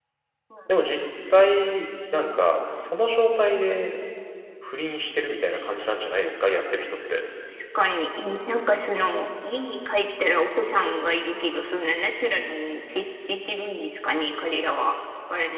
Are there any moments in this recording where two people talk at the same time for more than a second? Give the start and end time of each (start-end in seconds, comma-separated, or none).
none